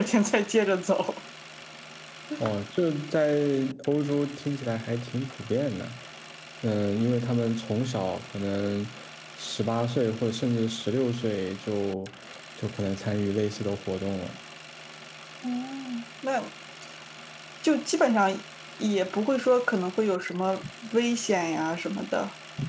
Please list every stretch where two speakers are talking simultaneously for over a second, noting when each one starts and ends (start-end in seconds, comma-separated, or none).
none